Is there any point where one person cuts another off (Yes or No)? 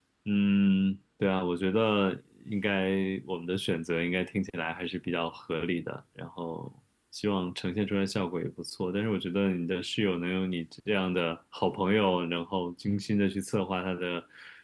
No